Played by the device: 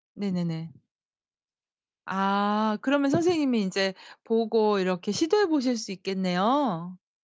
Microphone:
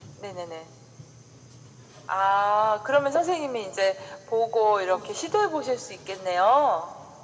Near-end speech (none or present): none